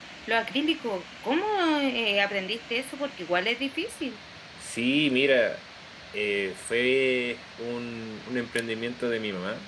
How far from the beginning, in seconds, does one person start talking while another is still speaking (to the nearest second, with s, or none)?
none